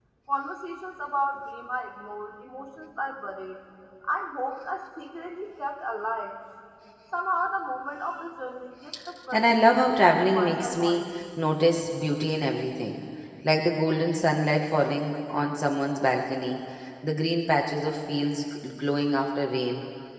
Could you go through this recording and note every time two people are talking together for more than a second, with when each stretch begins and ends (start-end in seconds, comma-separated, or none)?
9.3-11.0